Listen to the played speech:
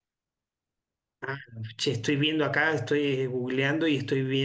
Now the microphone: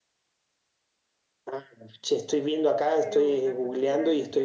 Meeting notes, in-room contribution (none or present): present